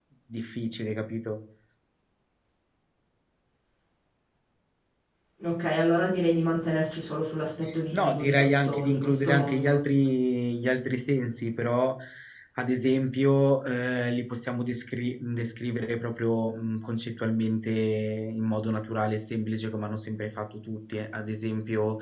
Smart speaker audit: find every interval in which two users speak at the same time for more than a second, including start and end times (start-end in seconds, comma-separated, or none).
7.9-9.8